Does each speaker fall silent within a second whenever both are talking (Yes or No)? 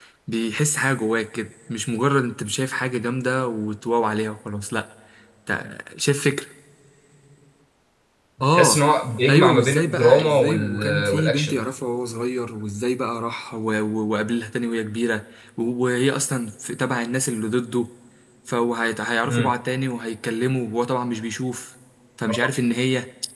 No